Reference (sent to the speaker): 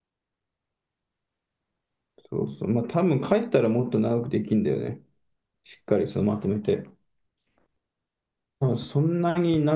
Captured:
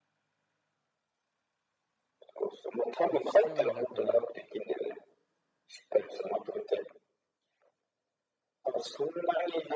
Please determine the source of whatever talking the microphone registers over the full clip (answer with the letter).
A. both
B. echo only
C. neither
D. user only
A